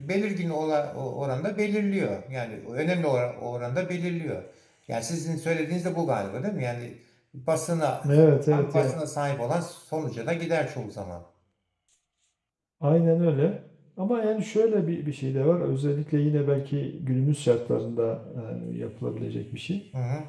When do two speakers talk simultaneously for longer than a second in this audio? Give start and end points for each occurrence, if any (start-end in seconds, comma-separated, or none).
none